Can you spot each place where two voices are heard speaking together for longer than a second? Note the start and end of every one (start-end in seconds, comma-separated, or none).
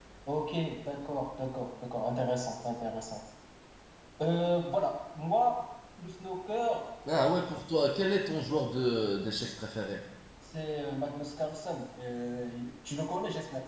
none